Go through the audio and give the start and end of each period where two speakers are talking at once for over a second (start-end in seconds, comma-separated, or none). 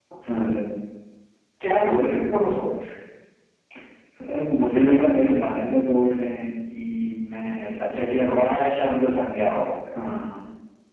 none